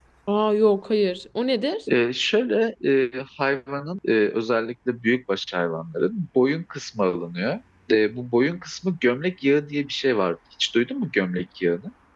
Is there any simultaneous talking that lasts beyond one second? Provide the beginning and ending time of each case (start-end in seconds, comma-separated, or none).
none